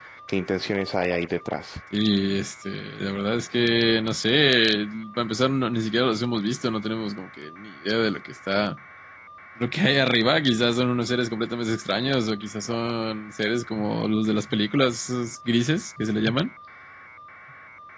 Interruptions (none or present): none